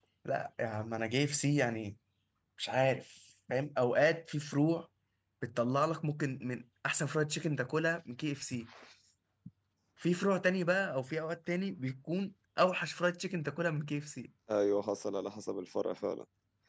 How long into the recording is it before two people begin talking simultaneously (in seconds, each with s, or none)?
none